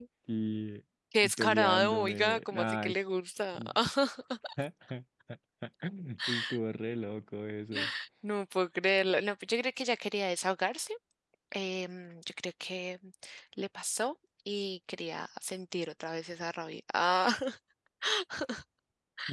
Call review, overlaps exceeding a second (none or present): present